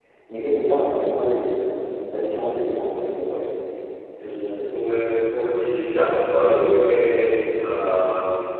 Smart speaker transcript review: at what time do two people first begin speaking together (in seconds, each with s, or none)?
none